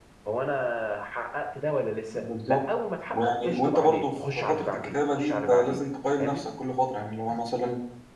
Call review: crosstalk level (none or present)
present